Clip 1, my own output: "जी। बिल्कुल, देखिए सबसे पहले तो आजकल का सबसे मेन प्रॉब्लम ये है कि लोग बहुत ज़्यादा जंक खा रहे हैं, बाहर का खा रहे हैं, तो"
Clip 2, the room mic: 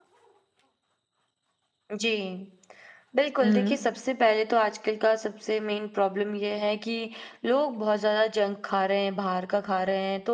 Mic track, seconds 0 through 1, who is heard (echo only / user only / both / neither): neither